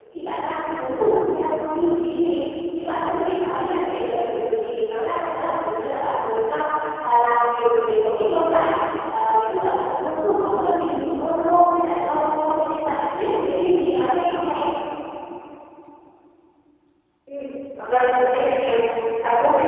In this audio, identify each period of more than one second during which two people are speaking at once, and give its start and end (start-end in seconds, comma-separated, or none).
none